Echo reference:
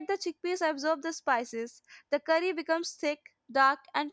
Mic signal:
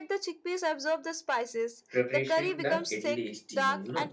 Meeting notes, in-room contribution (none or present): present